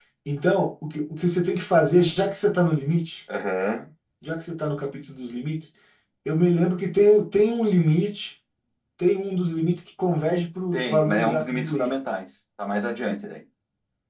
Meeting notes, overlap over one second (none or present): present